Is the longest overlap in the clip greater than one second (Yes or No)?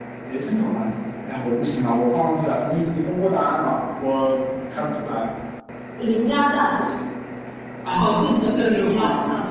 Yes